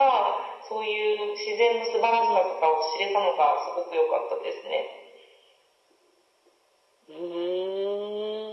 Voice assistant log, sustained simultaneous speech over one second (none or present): none